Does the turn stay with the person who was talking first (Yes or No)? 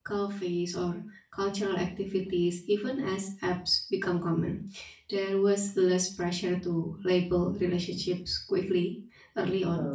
Yes